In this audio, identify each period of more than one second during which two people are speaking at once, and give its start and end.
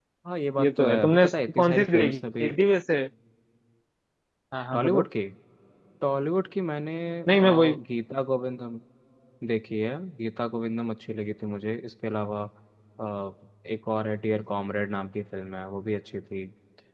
0.6-2.5

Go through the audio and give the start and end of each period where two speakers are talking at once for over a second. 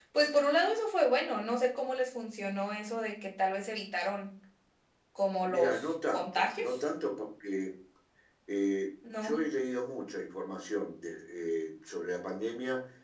5.4-6.8

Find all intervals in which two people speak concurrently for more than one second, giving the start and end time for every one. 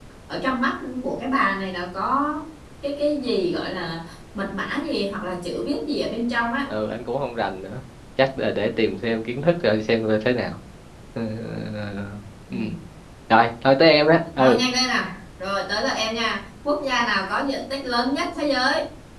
none

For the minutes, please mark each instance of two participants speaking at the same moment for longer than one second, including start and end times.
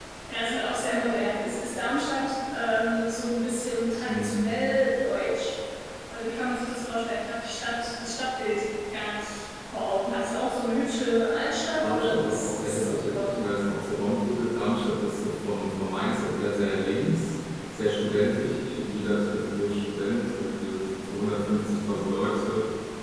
11.8-13.3

